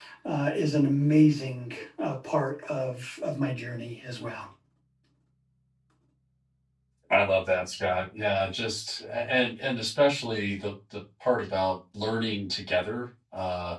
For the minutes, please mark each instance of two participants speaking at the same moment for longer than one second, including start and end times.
none

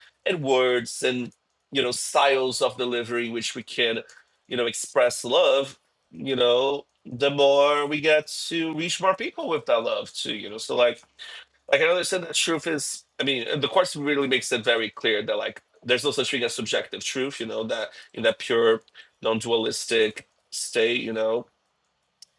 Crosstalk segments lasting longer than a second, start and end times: none

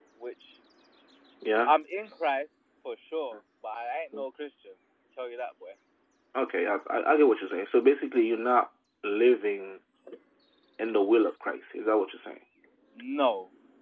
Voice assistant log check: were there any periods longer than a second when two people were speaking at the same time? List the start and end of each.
none

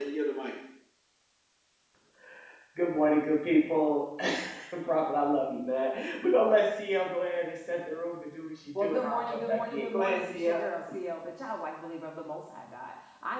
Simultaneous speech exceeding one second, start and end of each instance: 8.8-10.5

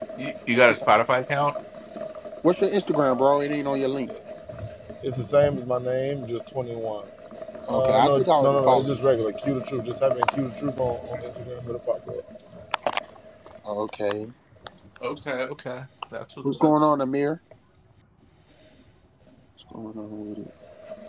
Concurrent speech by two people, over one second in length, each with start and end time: 7.7-9.0

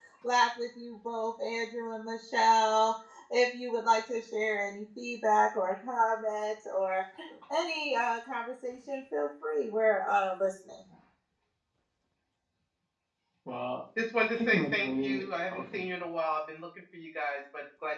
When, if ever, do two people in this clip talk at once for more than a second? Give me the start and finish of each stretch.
14.4-15.8

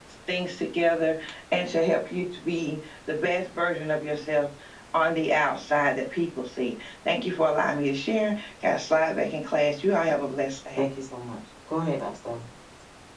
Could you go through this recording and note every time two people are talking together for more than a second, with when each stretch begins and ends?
none

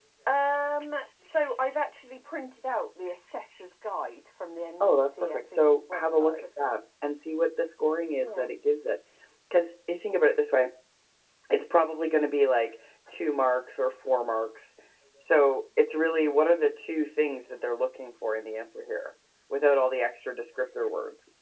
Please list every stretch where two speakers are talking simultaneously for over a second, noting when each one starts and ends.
4.8-6.5

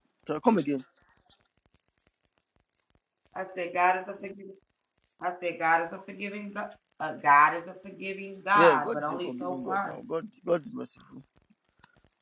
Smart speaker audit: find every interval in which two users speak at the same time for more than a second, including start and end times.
8.5-10.0

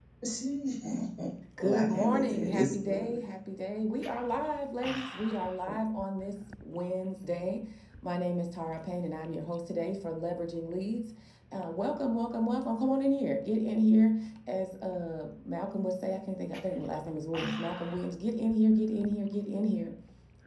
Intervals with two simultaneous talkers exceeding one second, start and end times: 1.6-3.2

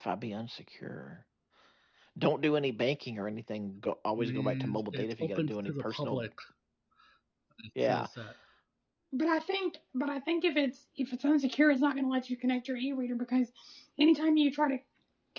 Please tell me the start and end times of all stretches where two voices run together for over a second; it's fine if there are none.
4.2-6.3

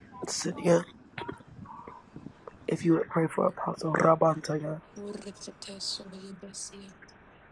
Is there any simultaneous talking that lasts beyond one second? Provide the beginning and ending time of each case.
none

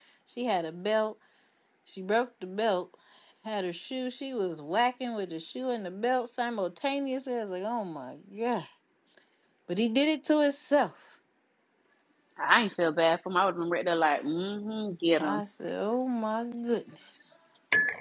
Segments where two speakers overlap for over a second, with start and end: none

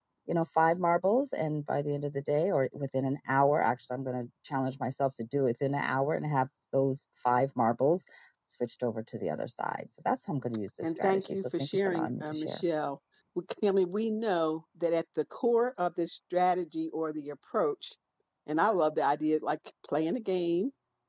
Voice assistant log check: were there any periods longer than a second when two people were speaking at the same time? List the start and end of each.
10.8-12.6

